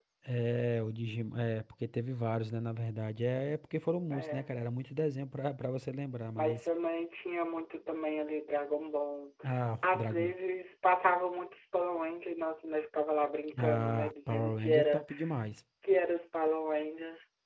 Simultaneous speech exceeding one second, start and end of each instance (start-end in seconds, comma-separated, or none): 13.6-15.0